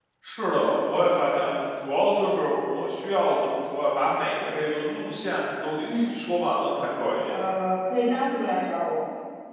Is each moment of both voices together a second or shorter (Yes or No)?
Yes